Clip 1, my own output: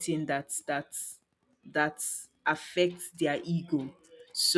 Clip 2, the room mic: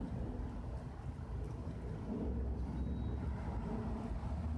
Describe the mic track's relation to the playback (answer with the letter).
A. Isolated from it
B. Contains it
A